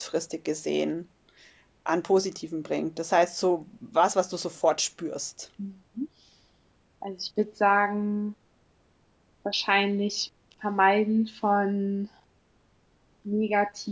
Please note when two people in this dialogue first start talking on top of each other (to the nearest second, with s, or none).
none